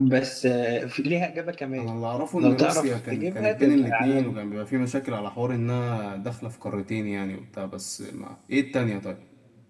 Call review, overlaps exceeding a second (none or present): present